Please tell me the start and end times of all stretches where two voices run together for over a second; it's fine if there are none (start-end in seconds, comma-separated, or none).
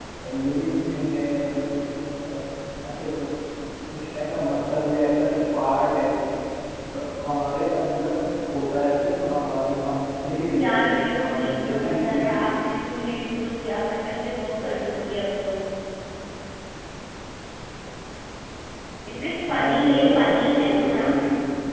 10.6-12.6, 19.6-21.1